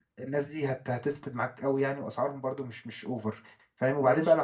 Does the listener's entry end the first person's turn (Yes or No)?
No